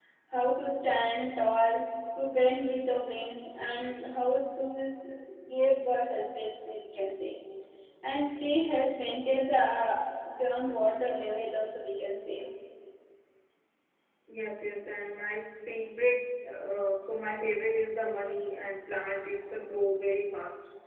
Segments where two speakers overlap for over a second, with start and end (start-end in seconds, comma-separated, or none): none